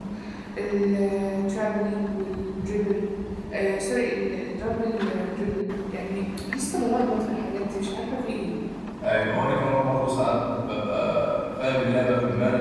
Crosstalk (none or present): none